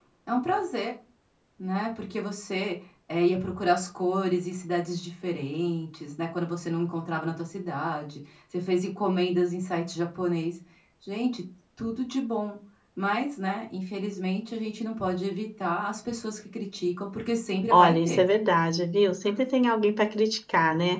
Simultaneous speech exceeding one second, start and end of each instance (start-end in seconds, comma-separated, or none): none